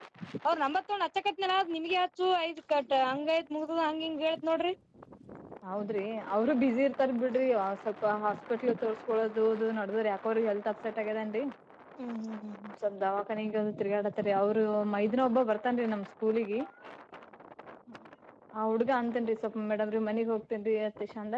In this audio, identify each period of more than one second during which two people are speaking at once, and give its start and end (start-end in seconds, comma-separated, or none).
none